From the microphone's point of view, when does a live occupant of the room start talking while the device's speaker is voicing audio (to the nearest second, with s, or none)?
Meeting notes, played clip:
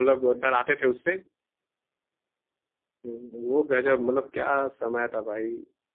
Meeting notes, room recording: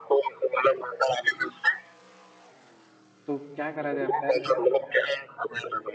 3 s